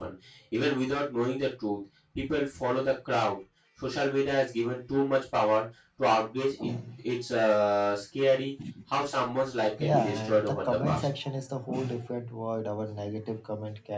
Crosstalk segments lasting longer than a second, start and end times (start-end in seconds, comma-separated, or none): 9.8-11.1